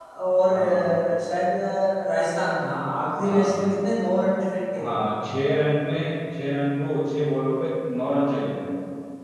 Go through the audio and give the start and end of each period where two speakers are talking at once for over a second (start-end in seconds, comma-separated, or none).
none